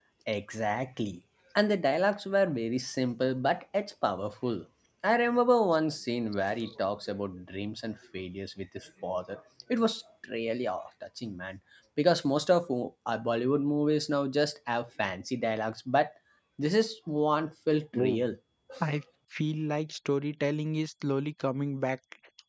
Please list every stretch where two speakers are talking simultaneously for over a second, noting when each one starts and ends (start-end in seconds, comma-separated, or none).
none